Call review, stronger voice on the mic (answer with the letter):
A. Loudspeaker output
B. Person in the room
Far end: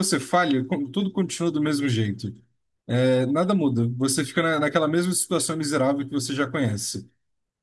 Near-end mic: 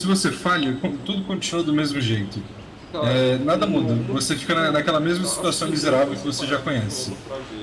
A